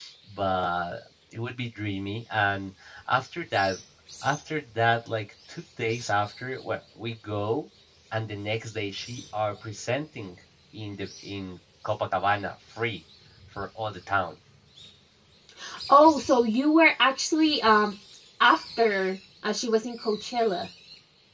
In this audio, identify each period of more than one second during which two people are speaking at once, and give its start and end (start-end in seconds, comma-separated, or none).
none